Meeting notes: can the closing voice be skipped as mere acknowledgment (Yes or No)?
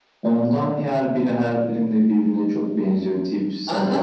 No